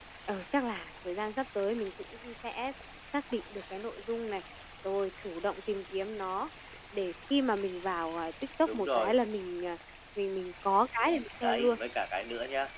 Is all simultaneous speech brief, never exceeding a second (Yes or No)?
Yes